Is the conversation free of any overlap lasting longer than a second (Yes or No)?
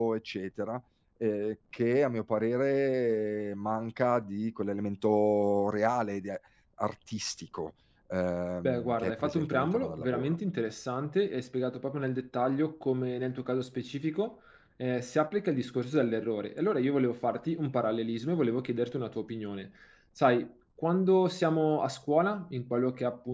No